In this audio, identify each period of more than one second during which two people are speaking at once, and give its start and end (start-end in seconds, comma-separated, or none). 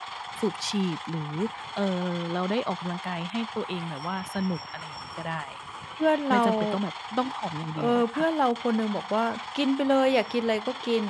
none